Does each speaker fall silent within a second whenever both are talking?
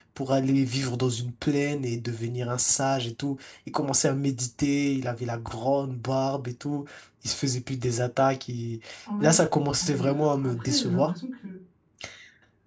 No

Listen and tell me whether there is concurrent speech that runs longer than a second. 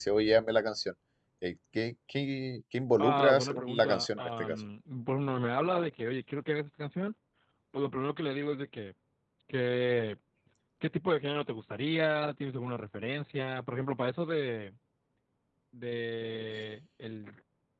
Yes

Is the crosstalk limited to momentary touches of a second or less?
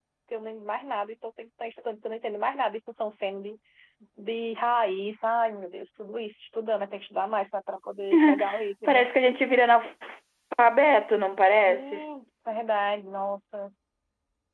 Yes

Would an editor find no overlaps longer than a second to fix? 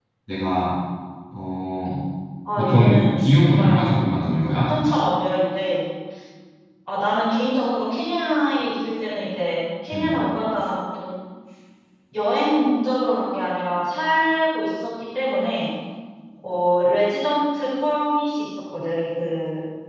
No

